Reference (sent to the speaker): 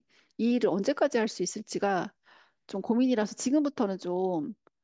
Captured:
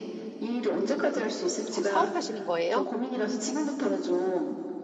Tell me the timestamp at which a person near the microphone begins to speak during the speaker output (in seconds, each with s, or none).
1.7 s